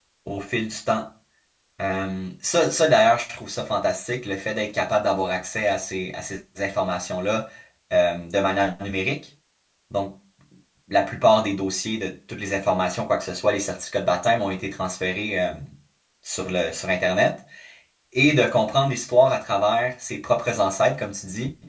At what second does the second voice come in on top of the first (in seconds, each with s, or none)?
none